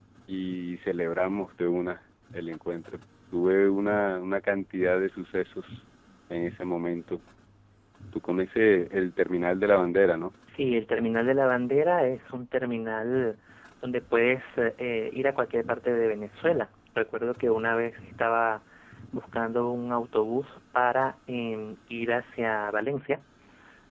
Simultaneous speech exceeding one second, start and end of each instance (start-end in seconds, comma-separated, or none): none